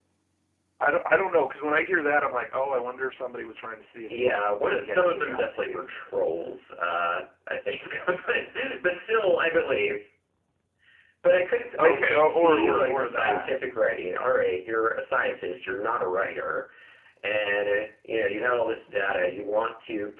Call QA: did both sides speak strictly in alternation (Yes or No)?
No